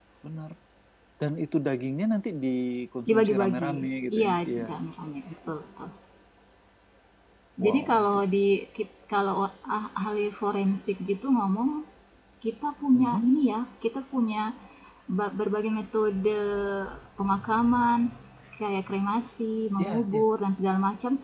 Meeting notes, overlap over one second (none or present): present